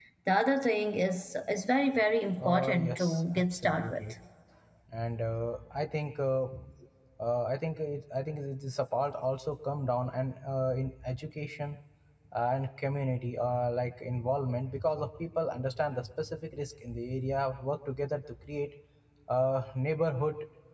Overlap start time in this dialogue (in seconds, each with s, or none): 2.4 s